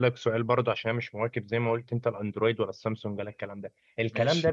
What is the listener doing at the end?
listening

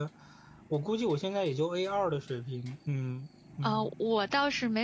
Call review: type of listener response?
taking over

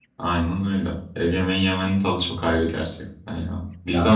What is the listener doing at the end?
listening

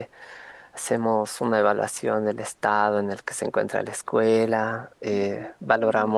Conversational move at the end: listening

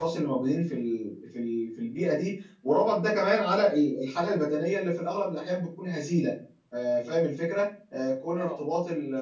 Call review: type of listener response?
listening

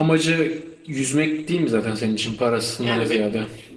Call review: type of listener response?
taking over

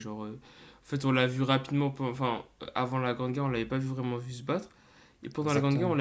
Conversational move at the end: listening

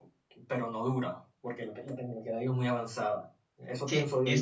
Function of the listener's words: taking over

